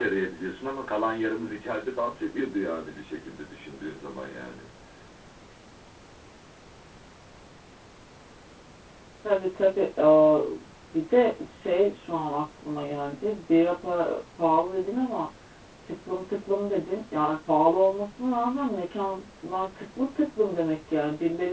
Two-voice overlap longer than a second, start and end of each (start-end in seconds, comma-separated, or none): none